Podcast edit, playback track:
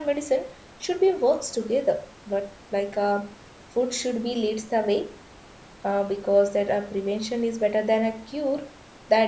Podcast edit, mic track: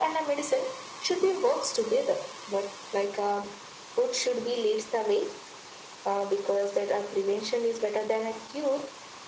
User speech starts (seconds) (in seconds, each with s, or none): none